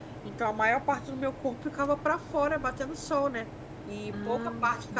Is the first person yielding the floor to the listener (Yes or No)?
No